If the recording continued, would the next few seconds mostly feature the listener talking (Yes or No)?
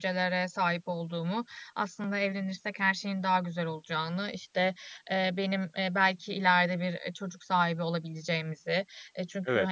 No